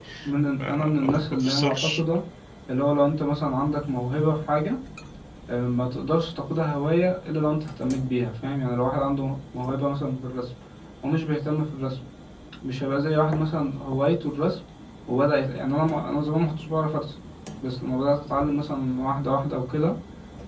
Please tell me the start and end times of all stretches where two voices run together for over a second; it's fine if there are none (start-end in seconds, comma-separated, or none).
0.7-2.0